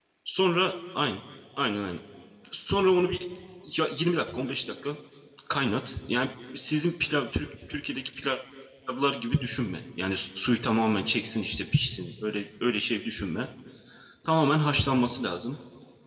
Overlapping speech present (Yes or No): No